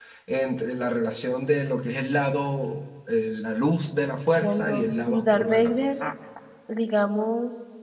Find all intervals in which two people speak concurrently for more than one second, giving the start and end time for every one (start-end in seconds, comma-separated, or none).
4.4-5.8